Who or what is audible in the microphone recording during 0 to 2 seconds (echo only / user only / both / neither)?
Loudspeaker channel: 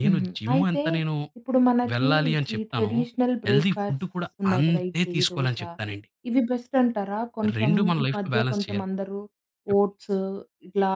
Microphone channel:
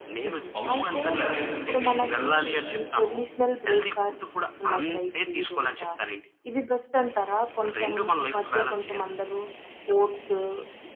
both